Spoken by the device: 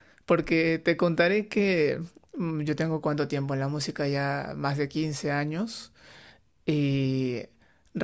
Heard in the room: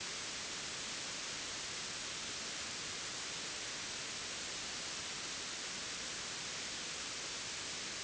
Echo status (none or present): none